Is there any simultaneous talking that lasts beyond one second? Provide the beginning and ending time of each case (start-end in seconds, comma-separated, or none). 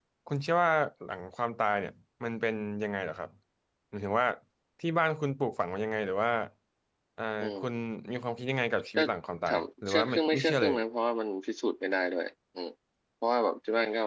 9.5-10.8